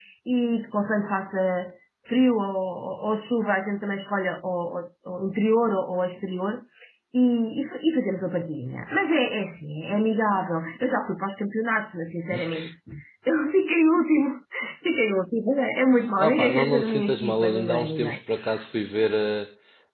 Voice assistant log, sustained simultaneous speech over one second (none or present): present